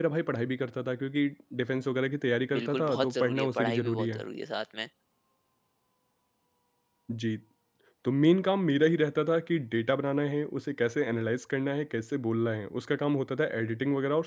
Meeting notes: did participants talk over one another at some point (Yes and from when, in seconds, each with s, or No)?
Yes, from 2.5 s